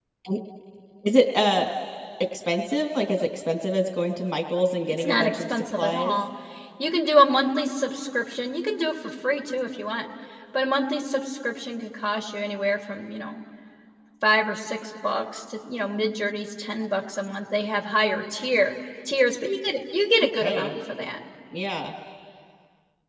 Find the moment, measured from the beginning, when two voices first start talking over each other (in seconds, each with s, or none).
4.9 s